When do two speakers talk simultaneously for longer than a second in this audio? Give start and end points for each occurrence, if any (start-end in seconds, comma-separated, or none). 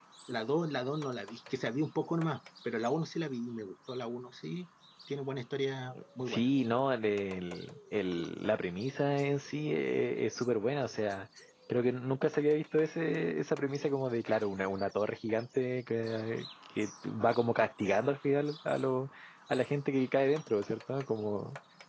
none